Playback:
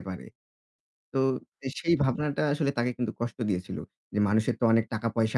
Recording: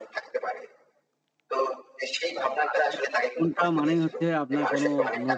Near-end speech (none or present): present